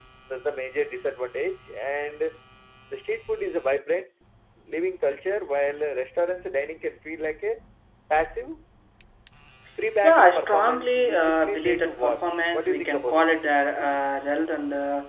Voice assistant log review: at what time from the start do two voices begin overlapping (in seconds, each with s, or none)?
10.0 s